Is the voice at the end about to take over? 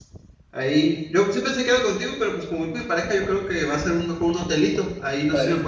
No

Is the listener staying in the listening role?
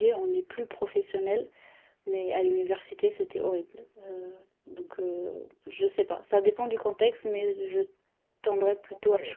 No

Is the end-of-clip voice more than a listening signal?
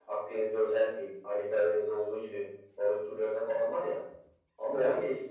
No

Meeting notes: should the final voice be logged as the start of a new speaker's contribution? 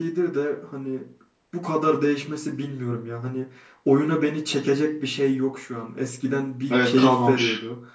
No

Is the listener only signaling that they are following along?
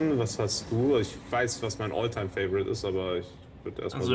No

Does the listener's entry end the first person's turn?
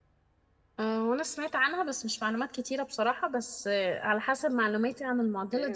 Yes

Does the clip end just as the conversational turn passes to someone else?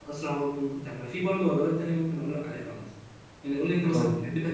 No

